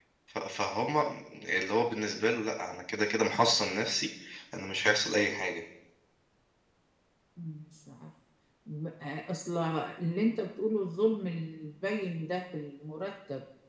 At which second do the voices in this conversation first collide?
none

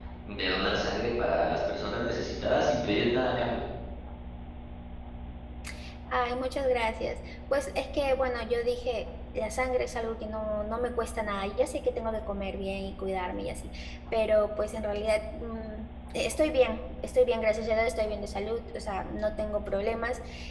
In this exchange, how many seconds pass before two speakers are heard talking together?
none

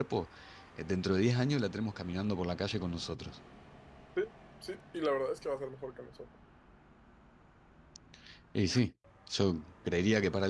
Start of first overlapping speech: none

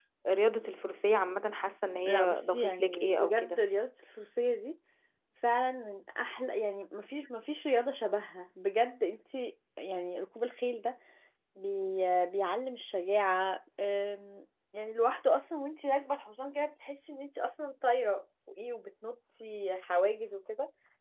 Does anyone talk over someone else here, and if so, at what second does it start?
2.1 s

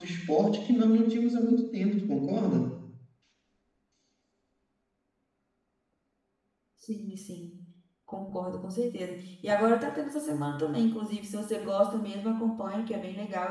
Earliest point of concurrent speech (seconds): none

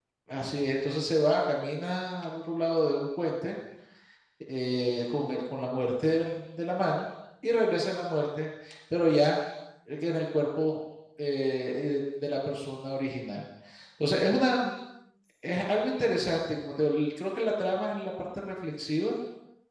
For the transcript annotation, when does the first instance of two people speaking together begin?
none

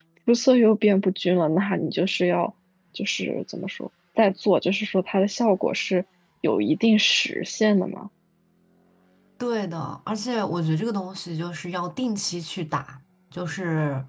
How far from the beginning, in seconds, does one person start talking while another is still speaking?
none

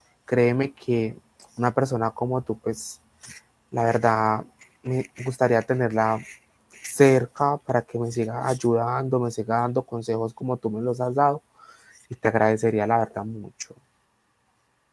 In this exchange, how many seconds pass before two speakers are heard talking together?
none

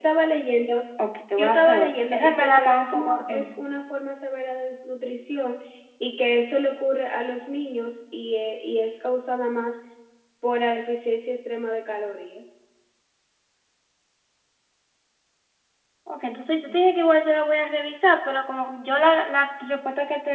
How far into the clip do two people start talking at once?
1.4 s

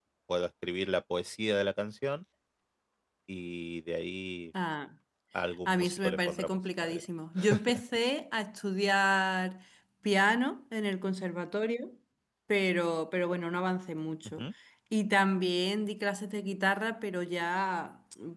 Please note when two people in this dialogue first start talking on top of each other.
5.7 s

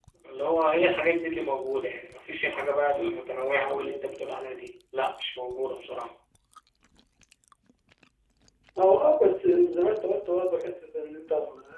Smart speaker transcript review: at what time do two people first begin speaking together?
none

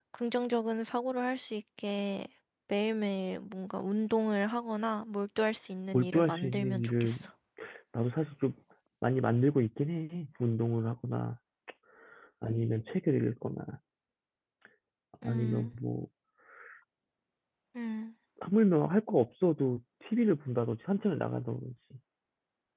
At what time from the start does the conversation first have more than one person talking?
5.9 s

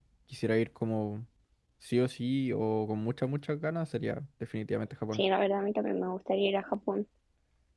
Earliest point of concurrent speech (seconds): none

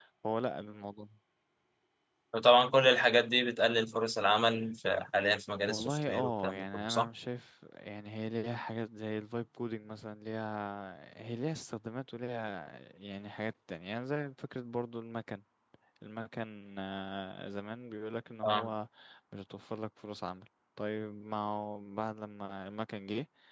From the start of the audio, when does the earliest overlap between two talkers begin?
5.7 s

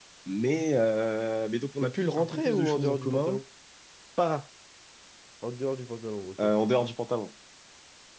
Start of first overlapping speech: 1.8 s

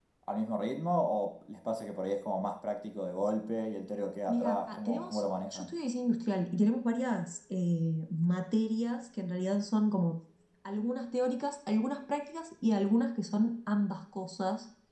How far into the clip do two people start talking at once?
4.3 s

